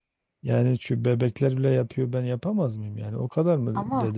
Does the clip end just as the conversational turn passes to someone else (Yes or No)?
No